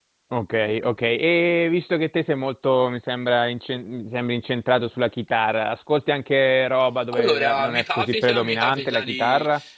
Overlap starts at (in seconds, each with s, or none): 7.1 s